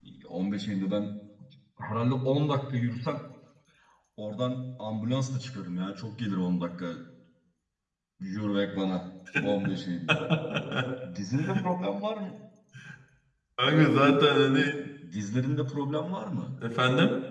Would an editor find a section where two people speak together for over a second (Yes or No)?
No